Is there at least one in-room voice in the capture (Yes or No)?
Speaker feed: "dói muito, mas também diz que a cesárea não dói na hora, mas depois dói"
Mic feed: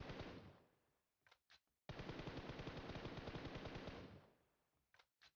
No